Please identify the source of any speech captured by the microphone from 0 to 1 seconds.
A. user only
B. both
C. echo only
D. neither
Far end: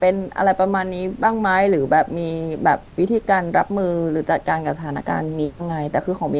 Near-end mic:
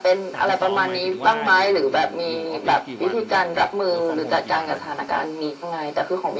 B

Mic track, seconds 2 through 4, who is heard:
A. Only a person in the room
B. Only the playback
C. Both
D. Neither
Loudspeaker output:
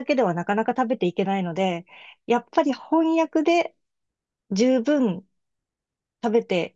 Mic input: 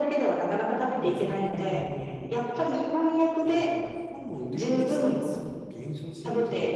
C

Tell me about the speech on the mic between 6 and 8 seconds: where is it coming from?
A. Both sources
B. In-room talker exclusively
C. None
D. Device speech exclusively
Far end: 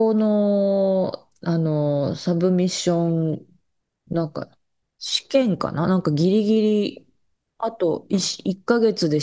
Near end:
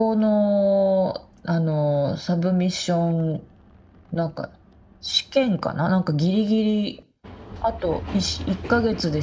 D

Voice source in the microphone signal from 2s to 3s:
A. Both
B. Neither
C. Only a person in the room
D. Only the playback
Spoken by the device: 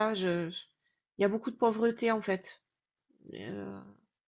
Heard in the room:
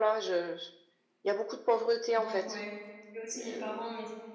A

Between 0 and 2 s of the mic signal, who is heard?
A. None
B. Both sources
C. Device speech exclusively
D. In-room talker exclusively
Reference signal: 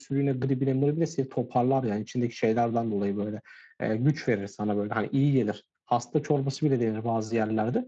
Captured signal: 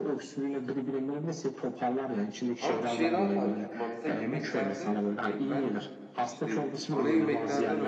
C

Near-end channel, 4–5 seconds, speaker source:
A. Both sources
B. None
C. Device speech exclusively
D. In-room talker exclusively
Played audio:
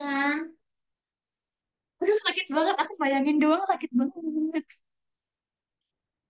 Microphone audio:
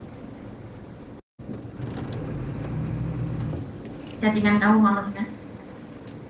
D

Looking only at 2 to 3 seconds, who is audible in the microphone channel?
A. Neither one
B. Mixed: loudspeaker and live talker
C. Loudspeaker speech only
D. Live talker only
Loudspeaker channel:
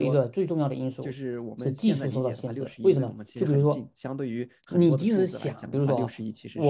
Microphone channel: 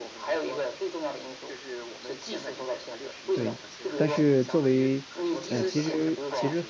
C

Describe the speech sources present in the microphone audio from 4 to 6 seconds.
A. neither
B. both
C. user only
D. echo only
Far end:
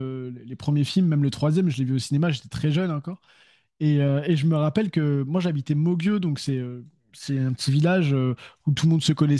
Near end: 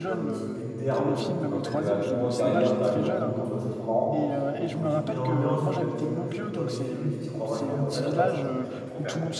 B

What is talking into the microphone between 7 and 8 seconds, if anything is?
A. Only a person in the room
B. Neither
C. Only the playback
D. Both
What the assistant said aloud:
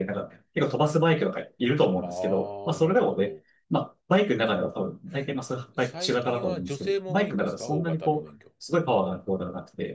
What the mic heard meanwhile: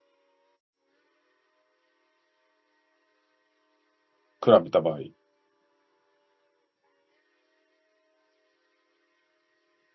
B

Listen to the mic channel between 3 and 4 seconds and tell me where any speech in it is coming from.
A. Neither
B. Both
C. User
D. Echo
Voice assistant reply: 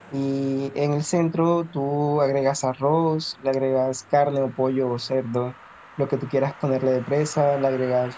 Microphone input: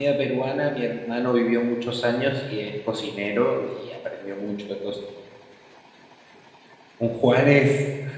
C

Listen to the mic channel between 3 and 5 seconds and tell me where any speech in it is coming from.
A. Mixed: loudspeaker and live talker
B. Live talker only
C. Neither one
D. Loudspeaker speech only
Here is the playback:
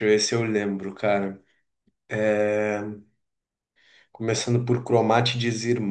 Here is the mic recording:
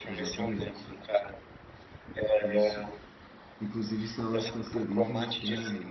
A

